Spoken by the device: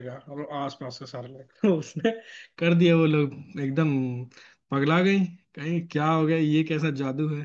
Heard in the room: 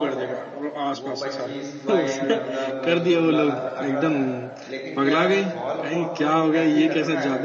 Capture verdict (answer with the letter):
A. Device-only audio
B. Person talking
B